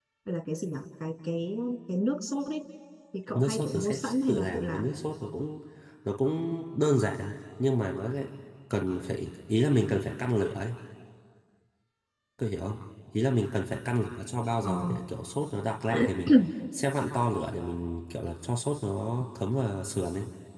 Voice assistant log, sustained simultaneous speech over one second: present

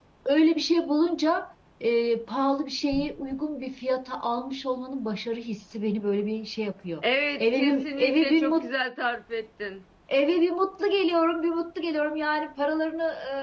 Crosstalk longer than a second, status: present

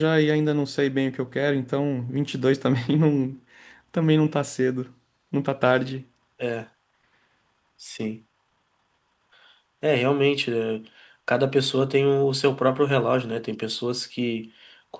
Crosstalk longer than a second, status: none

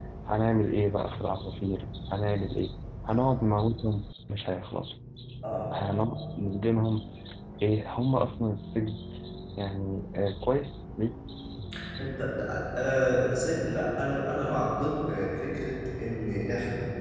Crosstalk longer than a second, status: none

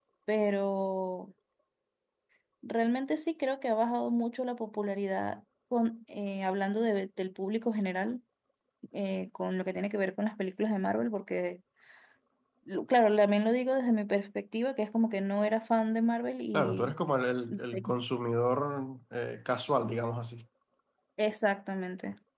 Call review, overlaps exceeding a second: none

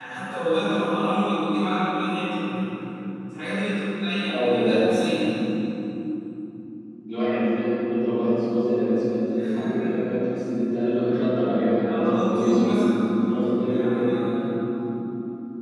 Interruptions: present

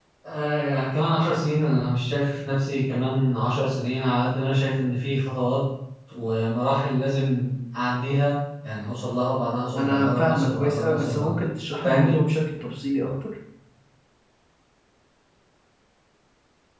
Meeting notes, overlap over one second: present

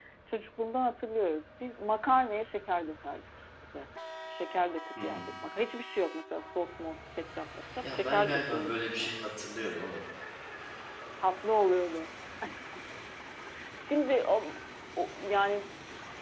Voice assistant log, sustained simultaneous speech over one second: present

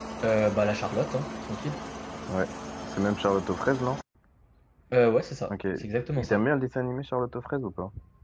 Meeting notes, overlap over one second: none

